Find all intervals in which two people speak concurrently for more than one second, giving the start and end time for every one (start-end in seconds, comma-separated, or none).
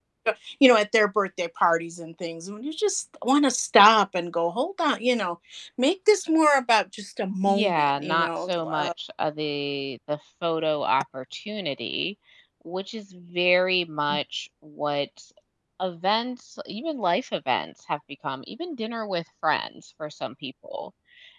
7.5-8.9